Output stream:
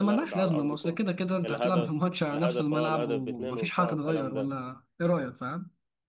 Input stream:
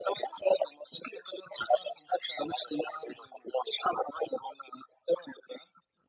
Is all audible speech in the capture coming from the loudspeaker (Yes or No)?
Yes